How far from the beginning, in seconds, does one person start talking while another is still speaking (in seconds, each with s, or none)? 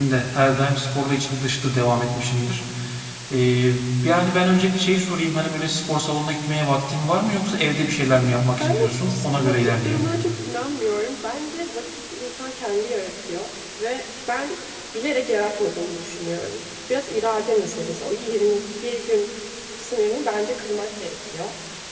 8.6 s